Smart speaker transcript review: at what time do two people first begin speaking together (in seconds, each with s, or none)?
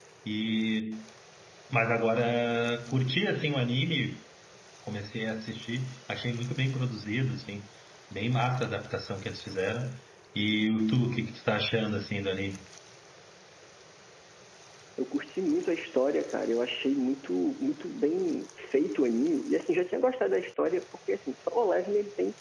none